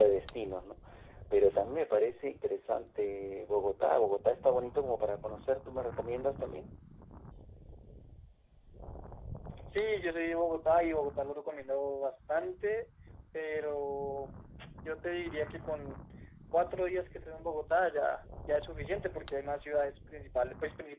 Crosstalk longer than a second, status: none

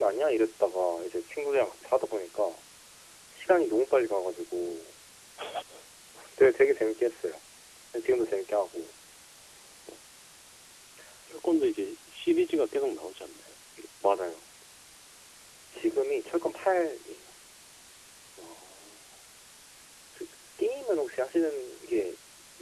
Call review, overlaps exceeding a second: none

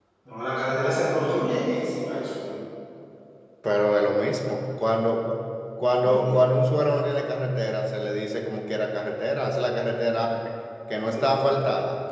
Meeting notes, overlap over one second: none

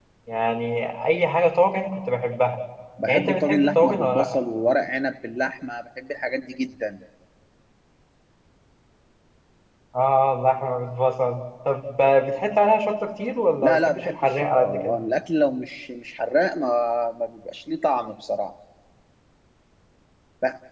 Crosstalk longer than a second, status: present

